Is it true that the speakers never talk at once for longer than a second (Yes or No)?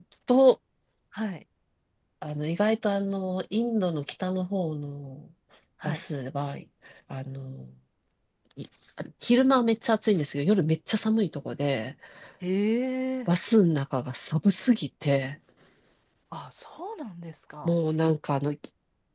Yes